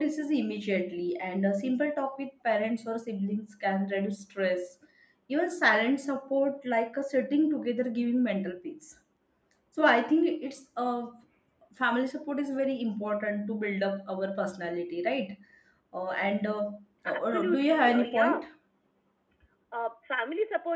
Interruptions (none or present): present